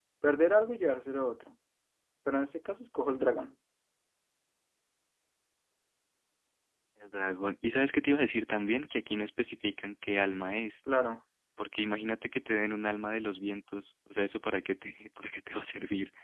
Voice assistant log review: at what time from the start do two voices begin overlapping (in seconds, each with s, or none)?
none